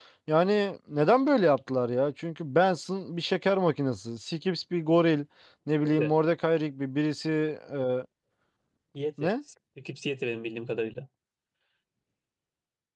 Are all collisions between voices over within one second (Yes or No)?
Yes